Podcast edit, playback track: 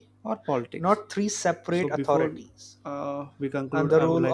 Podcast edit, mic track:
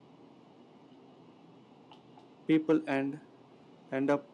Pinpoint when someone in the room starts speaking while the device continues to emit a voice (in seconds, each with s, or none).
2.5 s